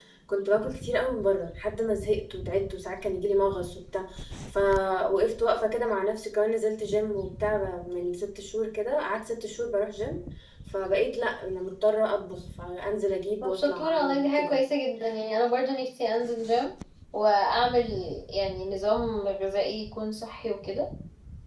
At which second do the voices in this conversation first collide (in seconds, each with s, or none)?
13.4 s